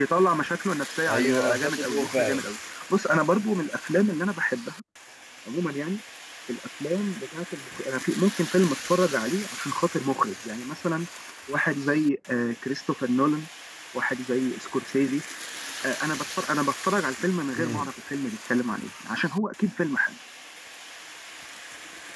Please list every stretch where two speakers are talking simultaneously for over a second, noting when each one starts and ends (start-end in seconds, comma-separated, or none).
1.1-2.5